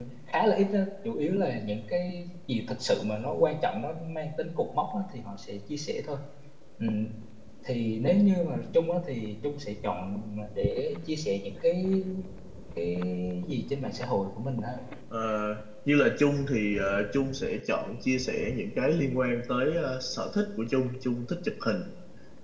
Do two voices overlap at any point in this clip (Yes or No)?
No